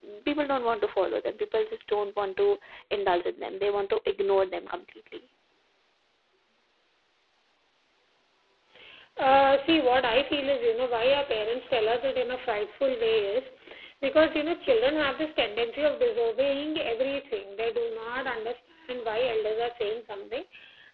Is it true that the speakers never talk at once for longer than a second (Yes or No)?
Yes